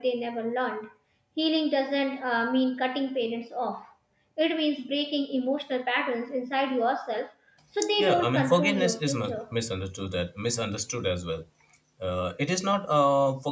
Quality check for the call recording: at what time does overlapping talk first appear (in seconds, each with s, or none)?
8.0 s